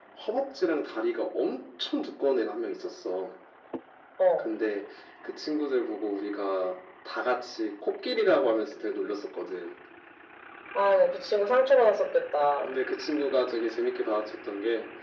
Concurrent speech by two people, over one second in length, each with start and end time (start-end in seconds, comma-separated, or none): none